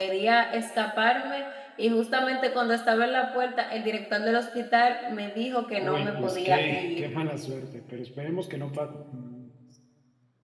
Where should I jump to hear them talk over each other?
6 s

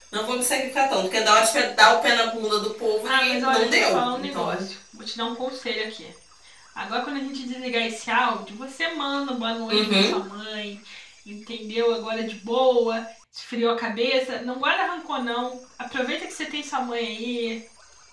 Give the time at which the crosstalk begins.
3 s

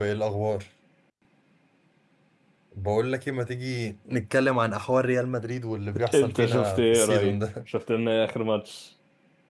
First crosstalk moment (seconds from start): 6 s

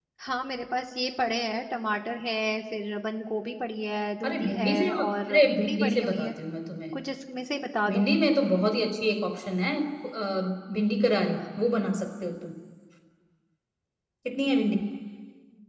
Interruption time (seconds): 4 s

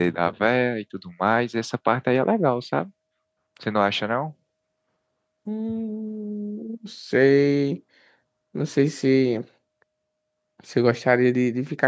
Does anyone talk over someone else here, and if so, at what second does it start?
none

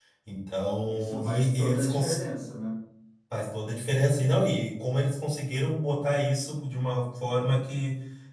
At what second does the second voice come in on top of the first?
1 s

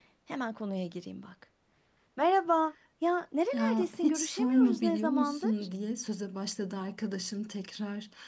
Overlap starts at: 4 s

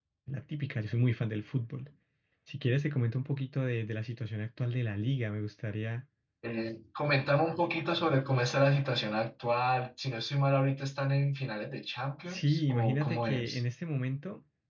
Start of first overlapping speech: 12 s

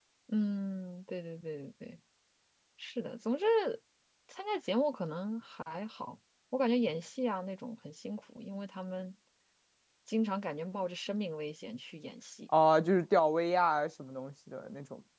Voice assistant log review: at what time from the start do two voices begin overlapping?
none

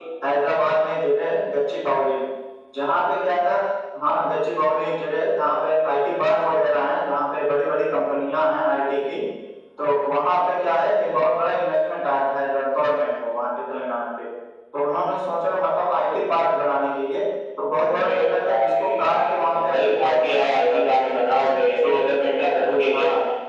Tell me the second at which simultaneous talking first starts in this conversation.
18 s

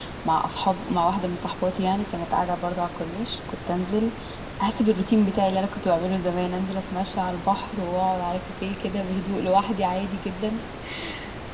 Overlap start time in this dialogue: none

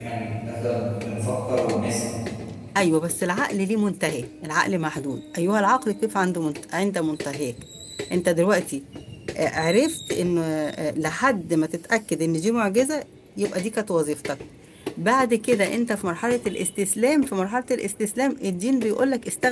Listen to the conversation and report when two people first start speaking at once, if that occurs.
none

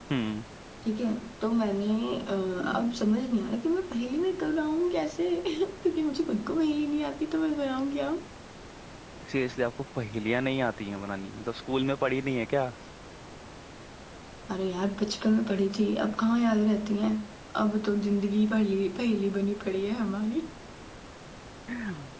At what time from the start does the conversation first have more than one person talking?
none

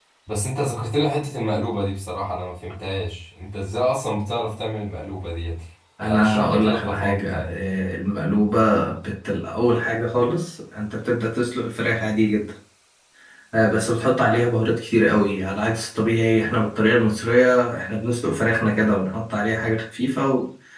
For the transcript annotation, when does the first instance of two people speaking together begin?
6 s

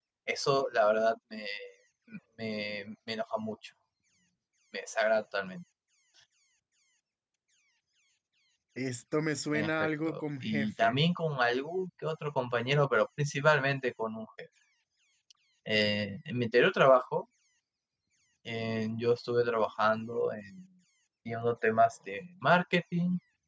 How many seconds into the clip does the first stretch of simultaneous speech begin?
10 s

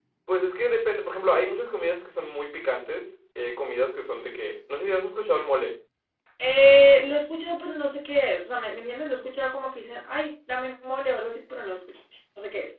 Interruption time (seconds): none

